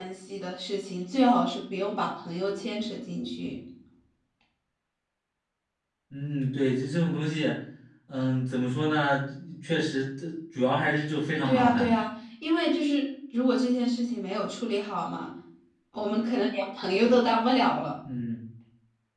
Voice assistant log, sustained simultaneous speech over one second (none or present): none